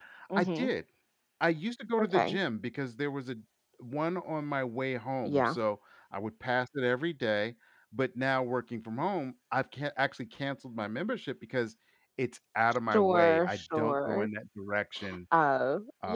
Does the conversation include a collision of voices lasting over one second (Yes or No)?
Yes